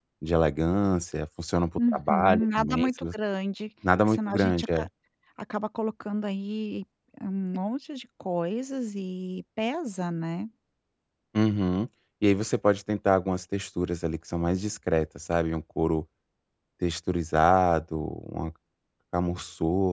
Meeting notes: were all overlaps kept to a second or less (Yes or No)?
No